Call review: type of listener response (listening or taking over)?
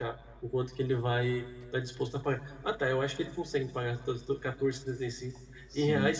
listening